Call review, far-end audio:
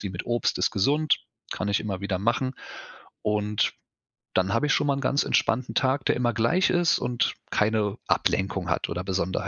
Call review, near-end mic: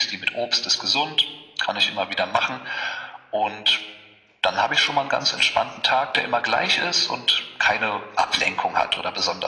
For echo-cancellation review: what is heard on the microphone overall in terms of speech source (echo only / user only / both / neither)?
echo only